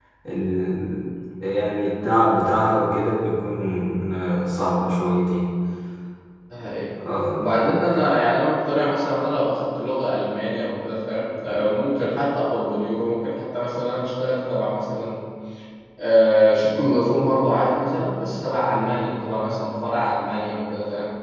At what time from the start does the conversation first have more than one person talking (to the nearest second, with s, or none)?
none